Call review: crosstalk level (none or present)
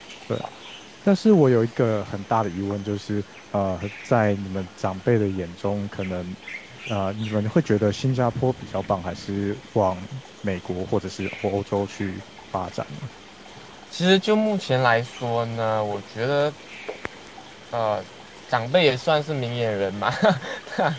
none